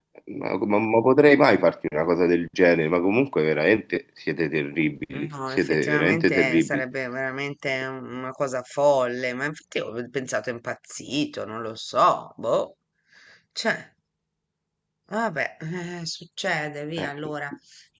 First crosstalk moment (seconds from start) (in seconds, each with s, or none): 5.1 s